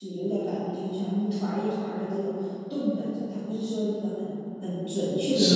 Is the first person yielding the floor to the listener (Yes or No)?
No